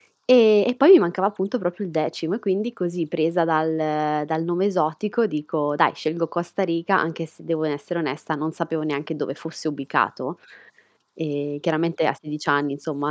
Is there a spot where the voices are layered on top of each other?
No

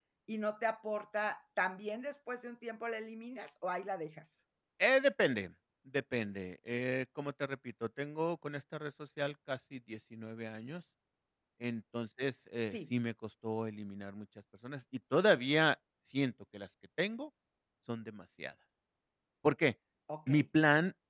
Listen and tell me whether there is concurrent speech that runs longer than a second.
No

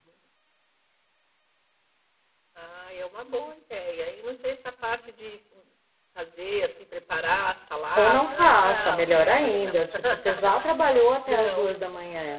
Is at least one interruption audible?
Yes, from 8.0 s

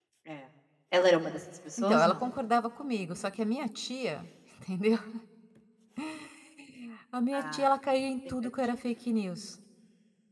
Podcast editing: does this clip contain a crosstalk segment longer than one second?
No

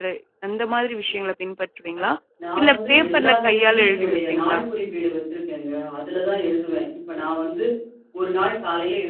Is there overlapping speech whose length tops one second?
Yes, from 2.6 s

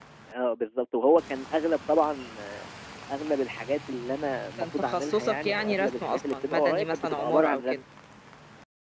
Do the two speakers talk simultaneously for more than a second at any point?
Yes, from 4.6 s

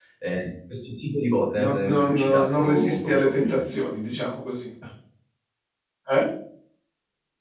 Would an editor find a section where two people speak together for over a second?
Yes, from 1.6 s

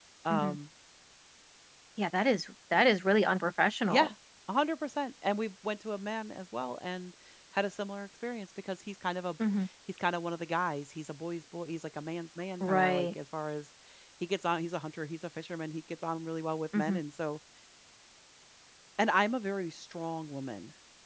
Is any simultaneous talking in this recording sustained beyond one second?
No

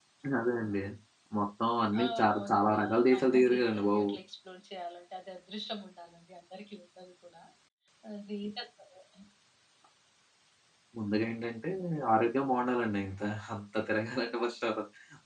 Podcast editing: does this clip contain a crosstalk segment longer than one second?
Yes, from 1.9 s

